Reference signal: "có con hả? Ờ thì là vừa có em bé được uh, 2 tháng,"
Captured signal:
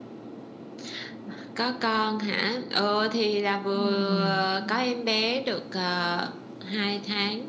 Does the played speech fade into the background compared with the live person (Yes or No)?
No